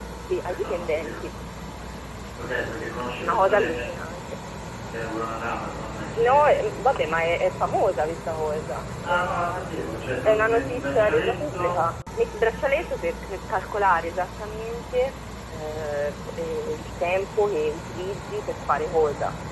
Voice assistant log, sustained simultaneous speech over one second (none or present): present